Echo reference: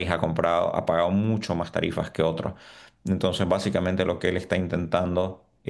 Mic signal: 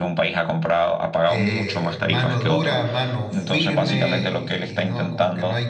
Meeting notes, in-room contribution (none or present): present